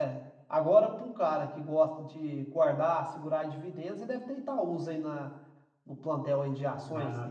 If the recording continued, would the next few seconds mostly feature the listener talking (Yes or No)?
Yes